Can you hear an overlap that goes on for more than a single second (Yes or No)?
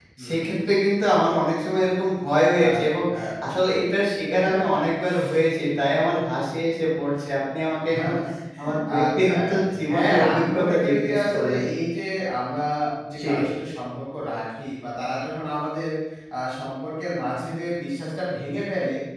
Yes